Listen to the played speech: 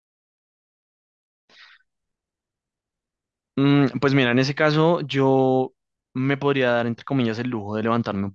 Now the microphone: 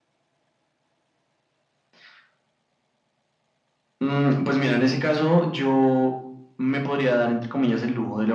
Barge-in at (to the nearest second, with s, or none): none